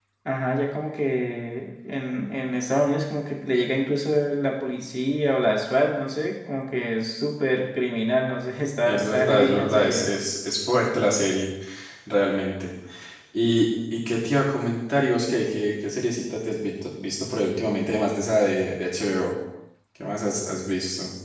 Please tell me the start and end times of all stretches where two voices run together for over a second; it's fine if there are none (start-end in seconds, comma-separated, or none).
8.8-10.1